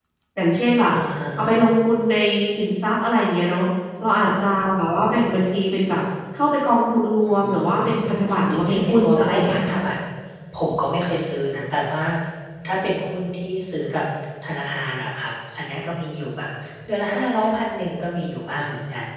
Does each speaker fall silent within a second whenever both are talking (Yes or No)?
No